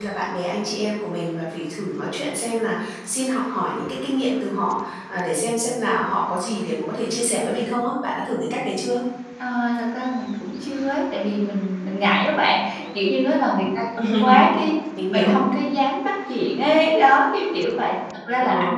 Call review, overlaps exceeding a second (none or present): none